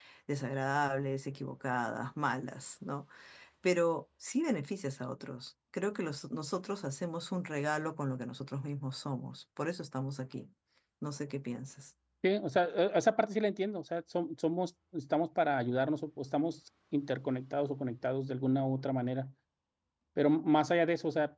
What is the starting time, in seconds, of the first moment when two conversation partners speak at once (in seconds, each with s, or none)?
none